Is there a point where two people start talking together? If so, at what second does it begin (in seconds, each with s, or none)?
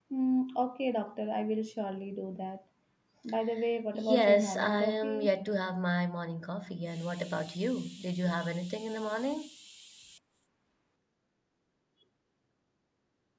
3.9 s